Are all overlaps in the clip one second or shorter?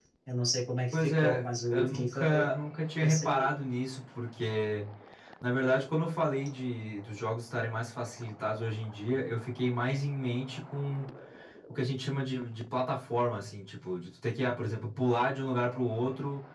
No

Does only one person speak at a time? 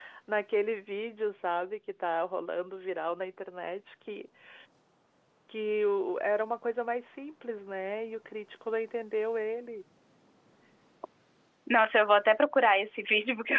Yes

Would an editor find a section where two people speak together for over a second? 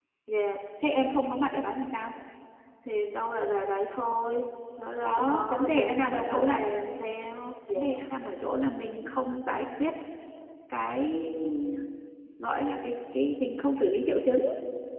Yes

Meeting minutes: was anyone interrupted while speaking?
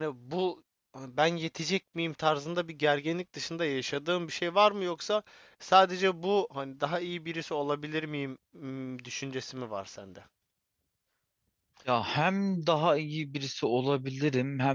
No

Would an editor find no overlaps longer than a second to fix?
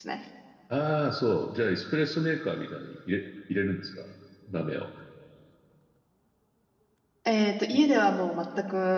Yes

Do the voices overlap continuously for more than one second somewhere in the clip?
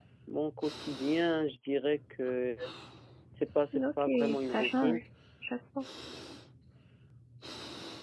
Yes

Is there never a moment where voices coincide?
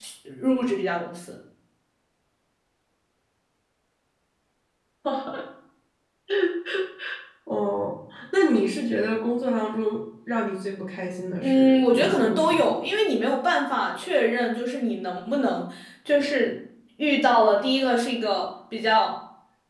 No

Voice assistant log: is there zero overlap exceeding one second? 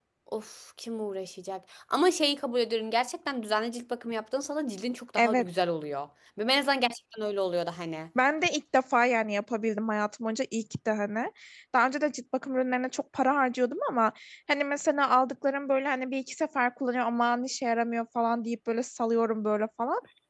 Yes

